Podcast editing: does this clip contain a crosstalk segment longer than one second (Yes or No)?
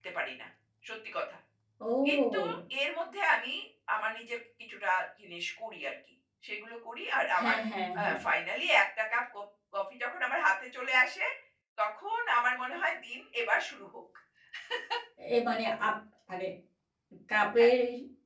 No